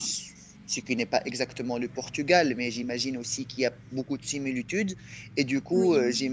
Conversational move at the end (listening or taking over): listening